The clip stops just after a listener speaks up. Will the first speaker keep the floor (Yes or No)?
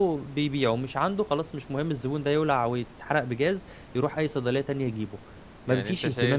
No